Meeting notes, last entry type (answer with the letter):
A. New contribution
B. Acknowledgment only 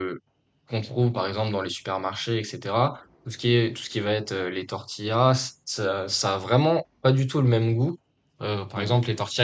B